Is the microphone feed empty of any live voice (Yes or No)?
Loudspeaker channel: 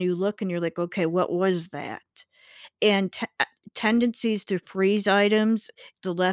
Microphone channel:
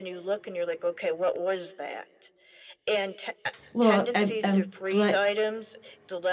No